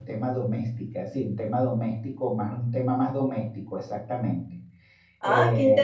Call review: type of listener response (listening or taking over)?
taking over